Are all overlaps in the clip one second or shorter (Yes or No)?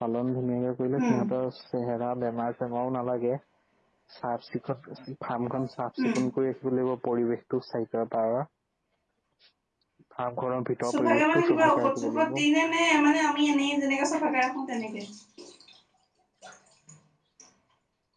No